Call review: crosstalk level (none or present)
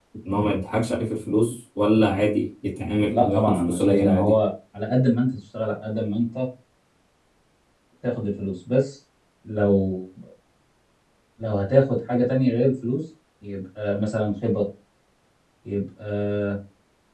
present